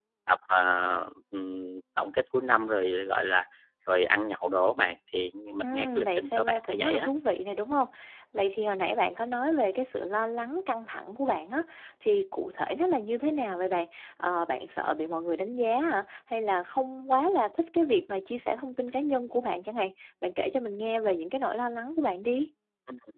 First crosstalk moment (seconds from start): 5.6 s

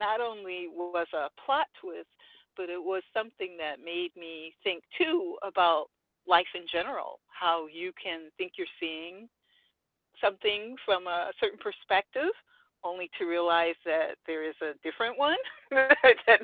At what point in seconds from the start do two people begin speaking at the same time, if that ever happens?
none

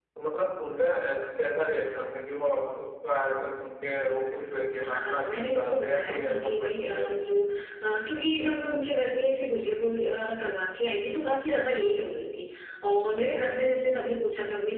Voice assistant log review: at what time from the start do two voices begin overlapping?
4.8 s

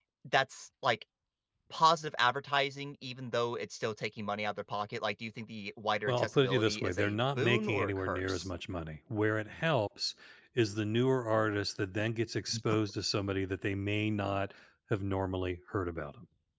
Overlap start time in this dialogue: 6.1 s

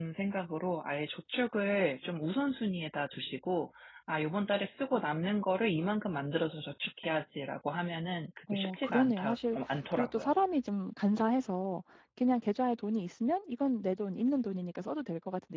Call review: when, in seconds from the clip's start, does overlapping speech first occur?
8.5 s

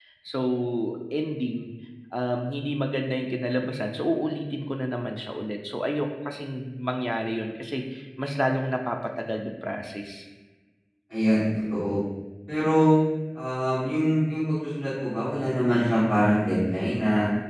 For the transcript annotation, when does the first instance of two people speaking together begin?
none

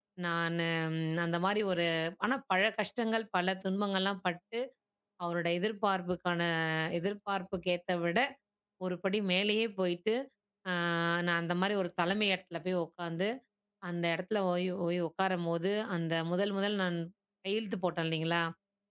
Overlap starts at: none

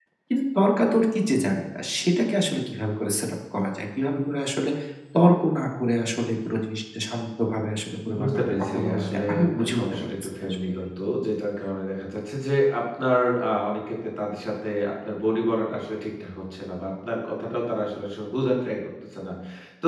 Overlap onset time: 8.1 s

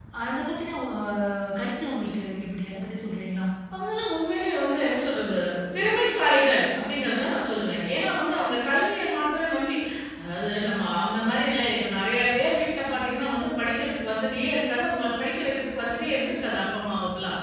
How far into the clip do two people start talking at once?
none

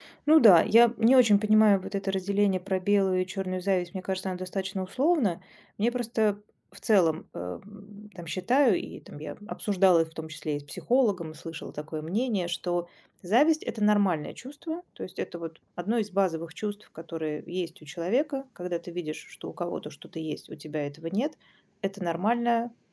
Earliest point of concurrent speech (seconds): none

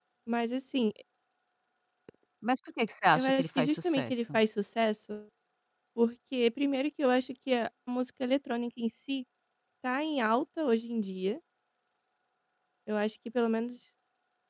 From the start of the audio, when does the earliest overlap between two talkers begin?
3.2 s

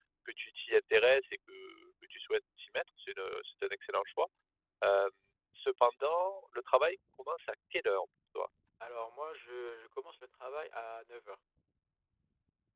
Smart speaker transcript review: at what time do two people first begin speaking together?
none

